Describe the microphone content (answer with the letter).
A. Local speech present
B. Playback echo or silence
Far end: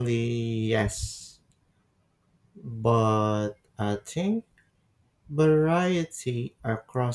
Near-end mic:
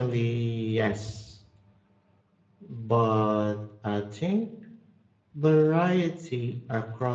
B